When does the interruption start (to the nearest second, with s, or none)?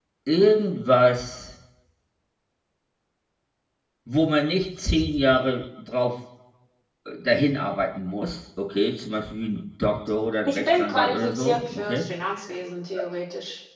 10 s